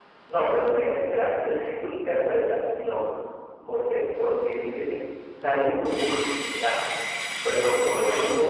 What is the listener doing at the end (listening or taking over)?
listening